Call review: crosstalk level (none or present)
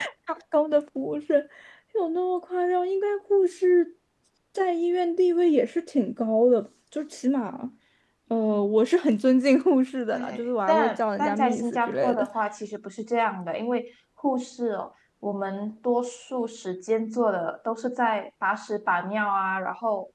present